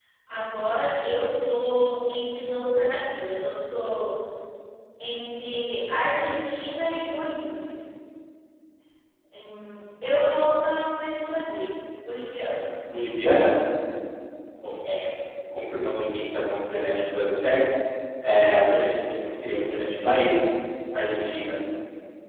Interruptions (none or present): none